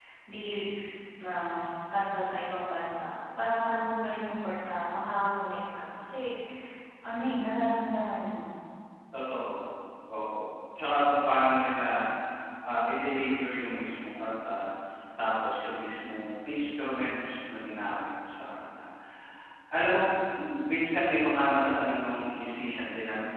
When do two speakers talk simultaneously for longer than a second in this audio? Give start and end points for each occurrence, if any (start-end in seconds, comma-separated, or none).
none